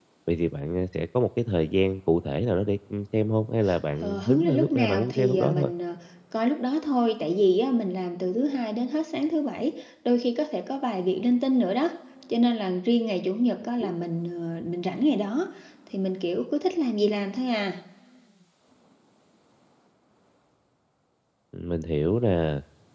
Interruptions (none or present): present